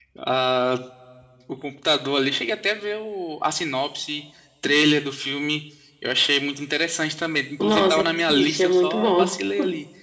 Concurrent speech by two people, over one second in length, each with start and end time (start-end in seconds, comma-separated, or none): 7.6-9.2